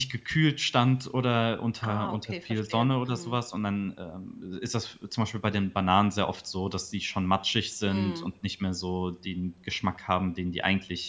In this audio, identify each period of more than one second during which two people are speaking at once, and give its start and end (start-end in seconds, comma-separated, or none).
1.8-3.4